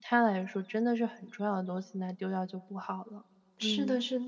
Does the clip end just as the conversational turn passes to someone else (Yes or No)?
Yes